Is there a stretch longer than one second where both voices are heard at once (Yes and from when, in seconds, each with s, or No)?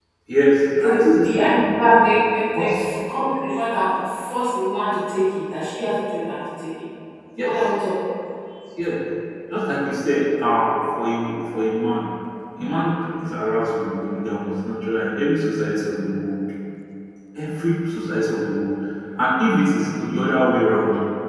Yes, from 0.8 s